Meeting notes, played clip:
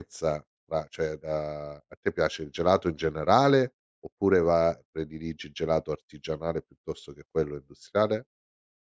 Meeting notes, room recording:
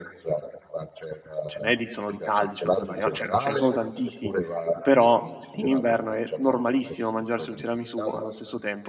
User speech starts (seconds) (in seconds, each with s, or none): 1.4 s